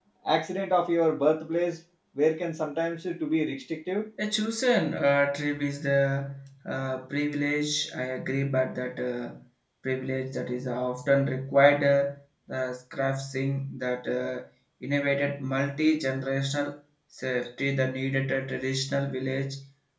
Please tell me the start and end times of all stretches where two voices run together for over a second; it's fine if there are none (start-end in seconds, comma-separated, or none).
none